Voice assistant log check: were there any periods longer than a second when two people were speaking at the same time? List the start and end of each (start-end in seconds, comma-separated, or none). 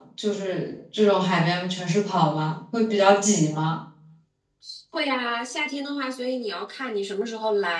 none